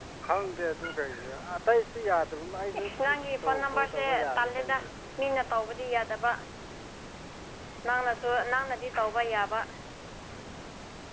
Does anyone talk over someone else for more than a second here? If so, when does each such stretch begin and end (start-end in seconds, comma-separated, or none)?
3.4-4.8